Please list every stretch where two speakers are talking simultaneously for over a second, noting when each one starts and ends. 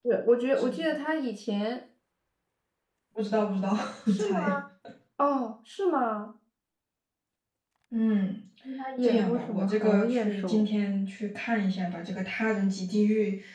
9.0-10.6

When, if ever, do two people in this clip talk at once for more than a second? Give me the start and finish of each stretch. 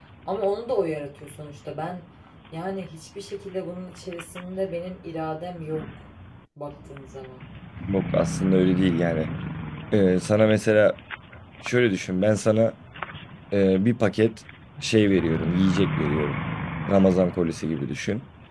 none

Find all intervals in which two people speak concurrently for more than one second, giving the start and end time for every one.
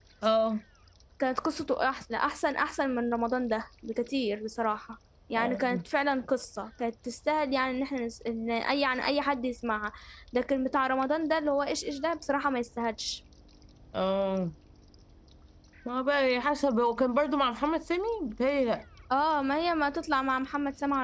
none

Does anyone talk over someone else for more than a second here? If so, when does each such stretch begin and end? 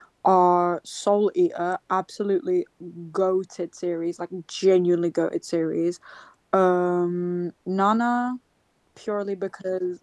none

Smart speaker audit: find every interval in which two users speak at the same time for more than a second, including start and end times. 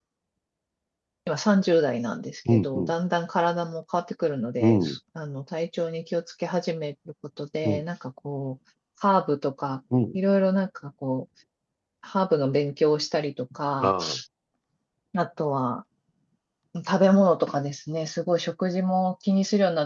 none

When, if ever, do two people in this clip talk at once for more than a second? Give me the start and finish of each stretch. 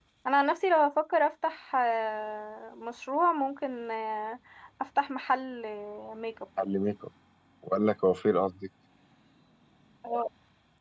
none

